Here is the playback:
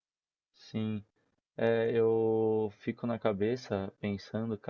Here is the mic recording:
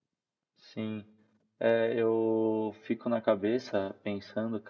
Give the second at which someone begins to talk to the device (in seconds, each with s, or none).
none